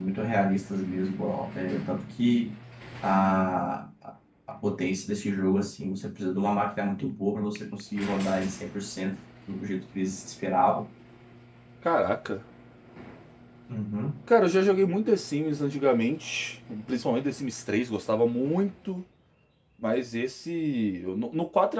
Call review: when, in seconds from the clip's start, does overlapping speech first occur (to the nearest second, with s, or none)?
none